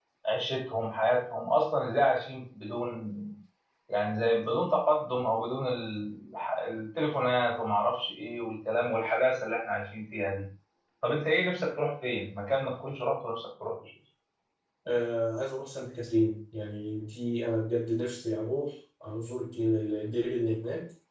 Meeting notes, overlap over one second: none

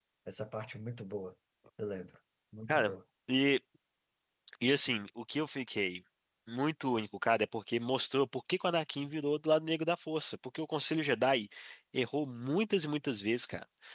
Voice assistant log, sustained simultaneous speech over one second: none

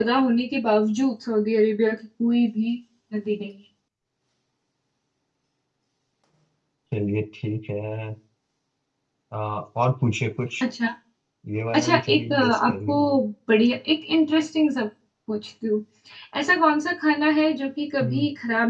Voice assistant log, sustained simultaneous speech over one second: present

